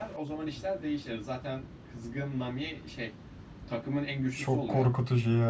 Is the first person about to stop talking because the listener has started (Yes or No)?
Yes